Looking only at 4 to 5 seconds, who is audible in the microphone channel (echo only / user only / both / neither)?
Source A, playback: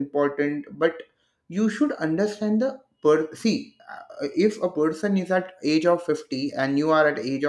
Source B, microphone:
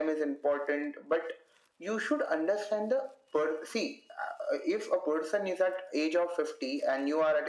echo only